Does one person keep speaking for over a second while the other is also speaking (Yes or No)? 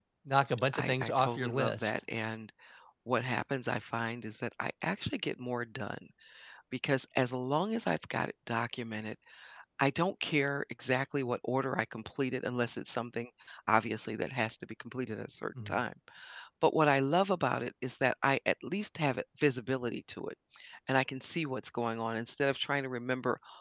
Yes